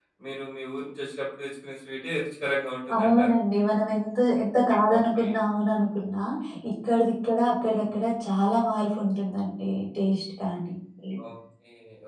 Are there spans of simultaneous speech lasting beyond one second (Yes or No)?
No